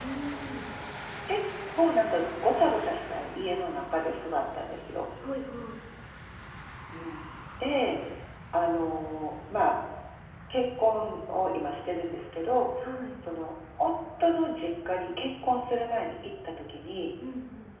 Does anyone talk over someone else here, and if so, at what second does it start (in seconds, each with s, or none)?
none